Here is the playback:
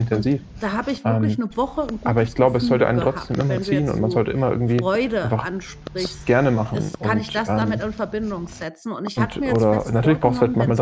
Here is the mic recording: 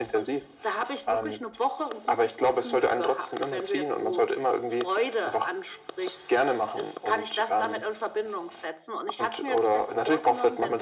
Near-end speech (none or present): none